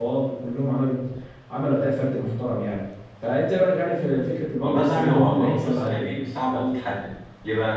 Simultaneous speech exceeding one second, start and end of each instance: 4.6-6.2

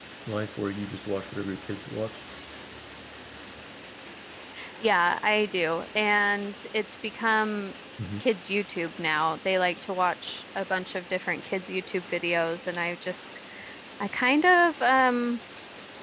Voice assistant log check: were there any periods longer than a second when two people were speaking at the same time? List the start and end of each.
none

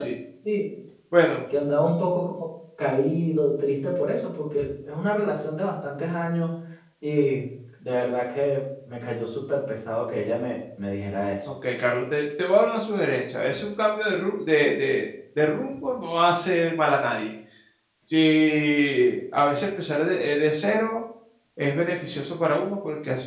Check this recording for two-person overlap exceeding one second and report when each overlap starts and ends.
none

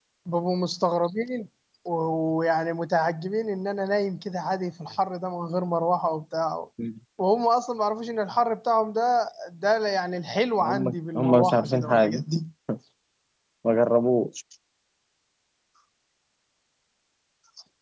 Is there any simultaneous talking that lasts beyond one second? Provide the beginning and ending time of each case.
10.6-12.2

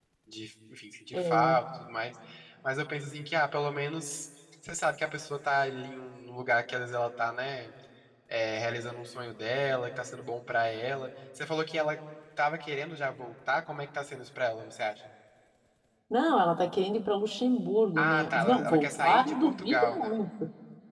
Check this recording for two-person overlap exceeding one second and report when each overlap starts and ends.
18.0-20.1

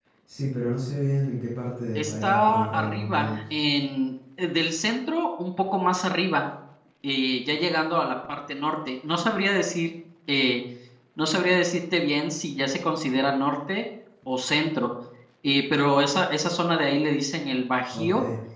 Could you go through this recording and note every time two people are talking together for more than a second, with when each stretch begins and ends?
1.9-3.4

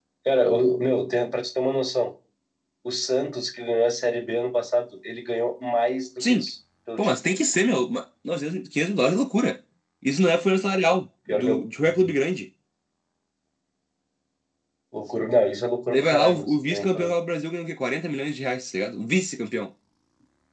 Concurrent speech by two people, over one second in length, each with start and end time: 15.9-17.1

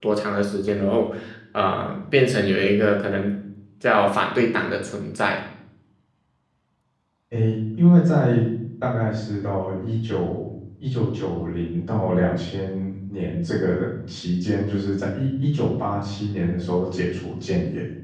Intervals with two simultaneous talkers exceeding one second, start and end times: none

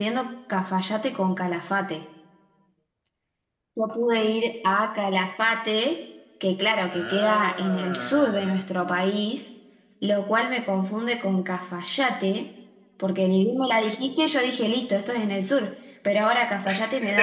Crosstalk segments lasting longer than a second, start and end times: 6.9-8.7

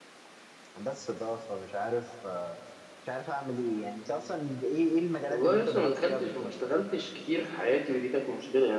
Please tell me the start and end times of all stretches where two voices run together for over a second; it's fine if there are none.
5.3-6.5

